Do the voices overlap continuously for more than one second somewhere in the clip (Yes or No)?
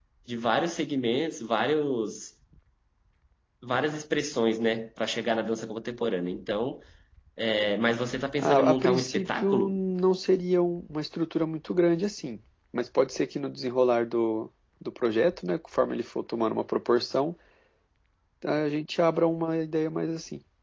Yes